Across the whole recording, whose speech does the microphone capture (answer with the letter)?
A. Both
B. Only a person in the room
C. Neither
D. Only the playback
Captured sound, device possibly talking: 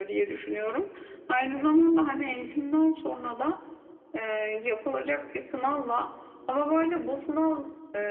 D